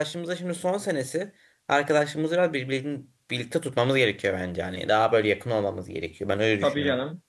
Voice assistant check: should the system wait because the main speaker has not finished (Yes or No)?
No